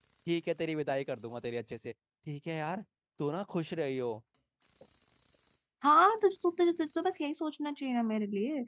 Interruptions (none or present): none